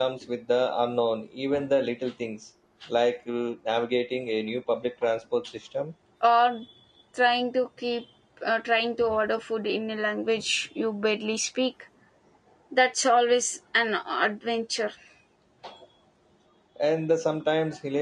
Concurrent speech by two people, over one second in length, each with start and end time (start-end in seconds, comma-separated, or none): none